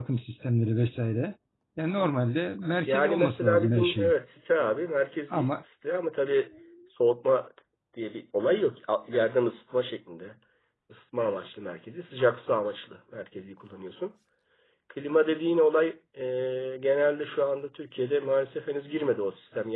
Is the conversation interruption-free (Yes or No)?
No